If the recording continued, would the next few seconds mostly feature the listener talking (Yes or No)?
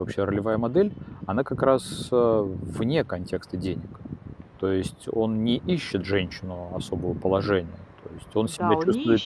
Yes